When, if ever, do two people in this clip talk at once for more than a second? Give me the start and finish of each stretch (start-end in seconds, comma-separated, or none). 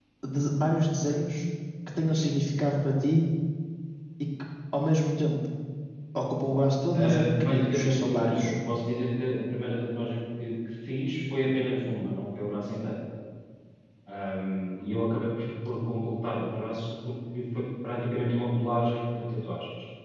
7.0-8.5